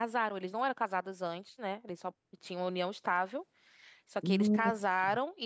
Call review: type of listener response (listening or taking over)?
listening